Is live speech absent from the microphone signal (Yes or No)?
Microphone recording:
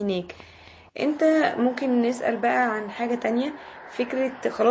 No